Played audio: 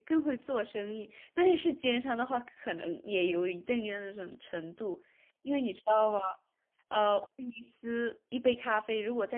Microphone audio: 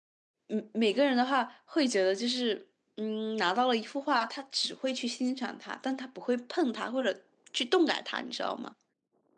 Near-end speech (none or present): present